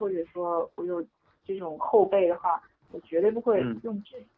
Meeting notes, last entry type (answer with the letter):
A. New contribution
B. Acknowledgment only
B